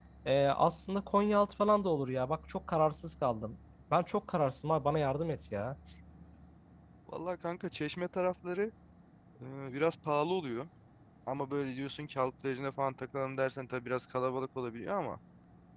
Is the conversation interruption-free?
Yes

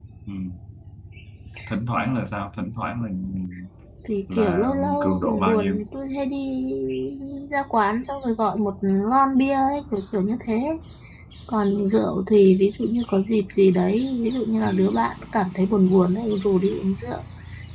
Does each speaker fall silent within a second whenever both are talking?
No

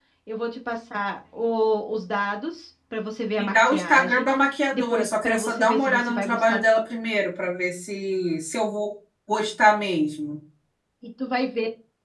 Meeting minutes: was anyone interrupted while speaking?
Yes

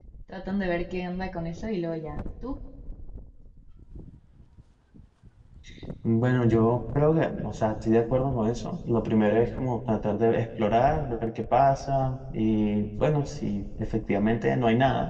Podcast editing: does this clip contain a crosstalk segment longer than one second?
No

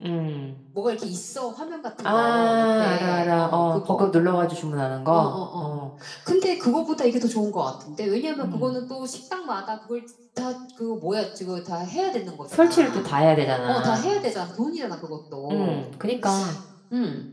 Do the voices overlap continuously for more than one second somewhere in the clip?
Yes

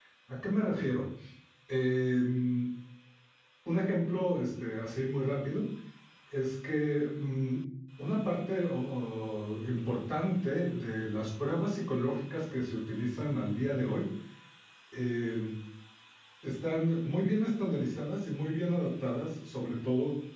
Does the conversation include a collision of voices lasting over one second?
No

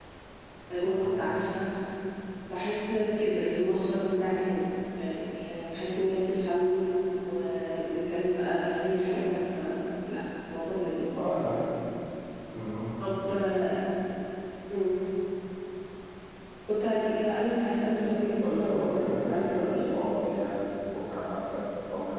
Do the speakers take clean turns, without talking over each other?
No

